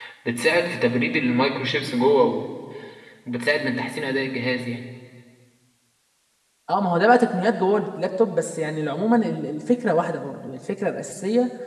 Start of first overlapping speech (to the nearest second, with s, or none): none